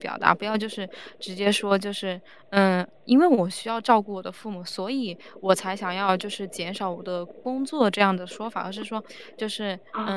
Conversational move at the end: listening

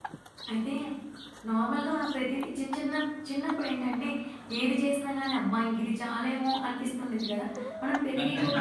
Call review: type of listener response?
listening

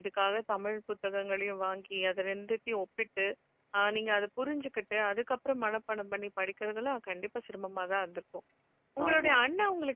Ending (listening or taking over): listening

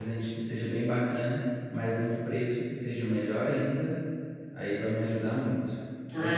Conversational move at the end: taking over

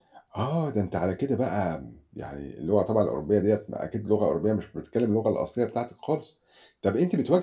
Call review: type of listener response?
listening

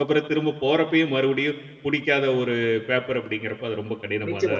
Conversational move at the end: taking over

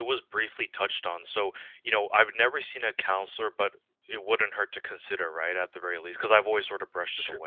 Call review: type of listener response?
taking over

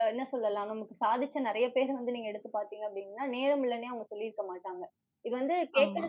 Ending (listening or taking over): listening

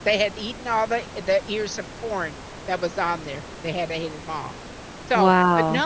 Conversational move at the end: listening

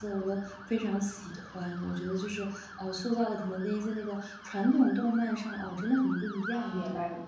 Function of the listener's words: taking over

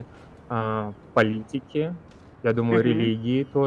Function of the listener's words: listening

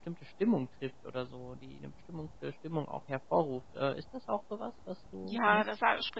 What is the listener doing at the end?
taking over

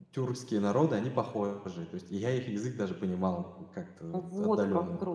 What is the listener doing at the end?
taking over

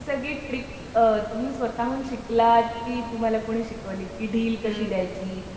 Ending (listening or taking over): listening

